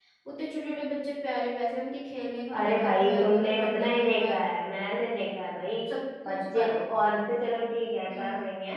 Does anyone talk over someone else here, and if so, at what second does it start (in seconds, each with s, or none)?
2.6 s